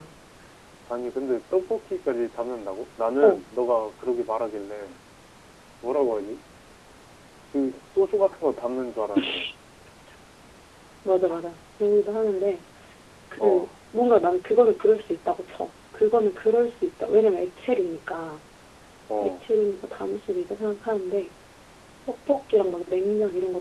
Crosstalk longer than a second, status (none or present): none